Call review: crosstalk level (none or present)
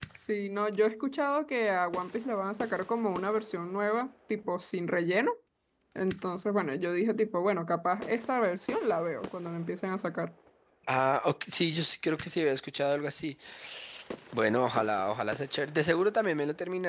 none